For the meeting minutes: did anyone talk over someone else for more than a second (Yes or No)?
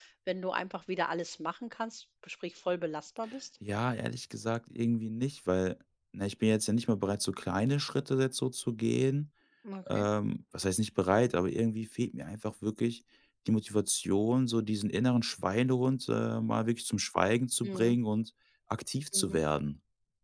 No